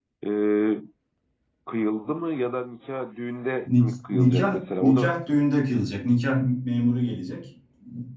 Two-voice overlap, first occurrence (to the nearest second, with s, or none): 4 s